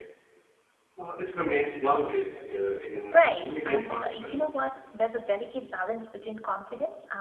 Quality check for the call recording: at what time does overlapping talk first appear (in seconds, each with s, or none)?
3.1 s